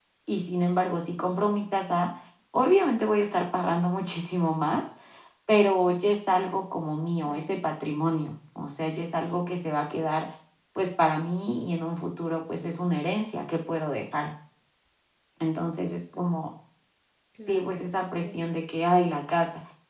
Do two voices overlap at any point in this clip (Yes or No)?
Yes